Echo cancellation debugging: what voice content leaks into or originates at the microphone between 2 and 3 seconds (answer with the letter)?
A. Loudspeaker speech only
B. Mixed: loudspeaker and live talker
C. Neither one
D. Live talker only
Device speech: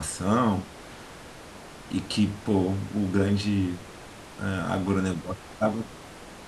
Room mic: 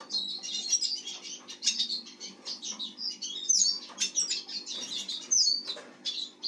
C